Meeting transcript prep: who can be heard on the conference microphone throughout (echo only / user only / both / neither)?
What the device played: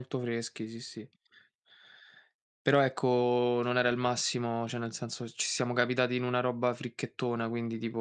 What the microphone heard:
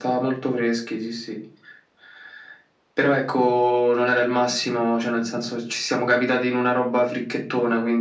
echo only